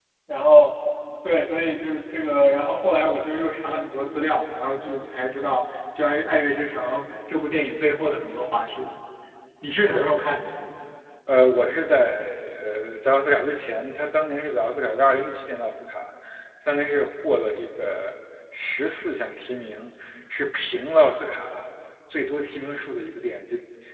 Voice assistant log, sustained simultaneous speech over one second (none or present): none